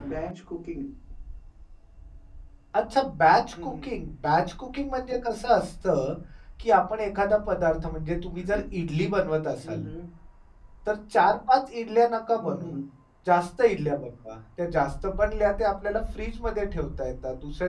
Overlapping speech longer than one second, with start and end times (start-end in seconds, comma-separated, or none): none